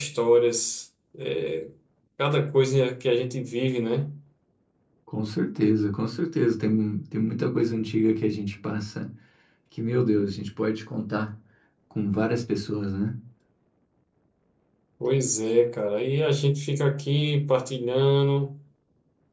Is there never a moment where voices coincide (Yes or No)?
Yes